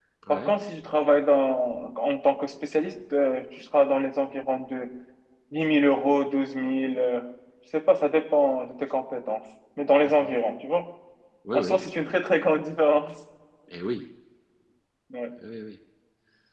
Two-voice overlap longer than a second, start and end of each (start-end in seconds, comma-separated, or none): none